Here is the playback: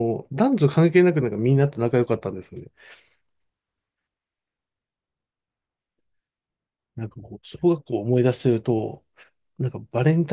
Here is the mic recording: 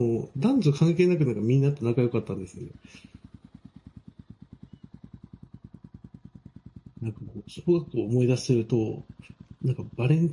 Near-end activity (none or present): none